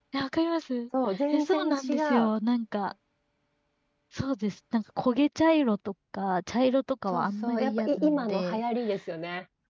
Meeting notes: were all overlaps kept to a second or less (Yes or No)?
No